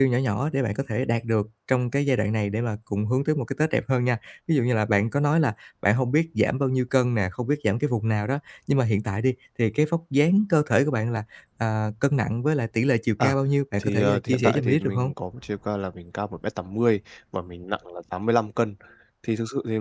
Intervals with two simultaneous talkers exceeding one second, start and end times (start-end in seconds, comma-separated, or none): 13.8-15.1